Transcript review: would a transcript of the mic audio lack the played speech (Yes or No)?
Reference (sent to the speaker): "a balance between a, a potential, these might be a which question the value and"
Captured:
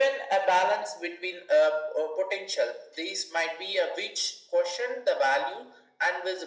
No